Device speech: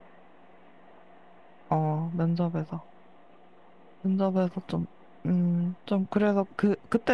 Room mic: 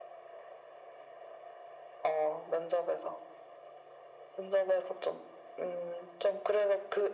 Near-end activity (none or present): none